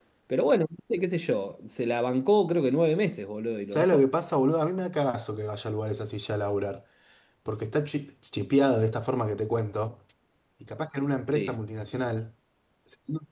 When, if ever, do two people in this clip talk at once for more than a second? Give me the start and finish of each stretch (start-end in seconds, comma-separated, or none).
none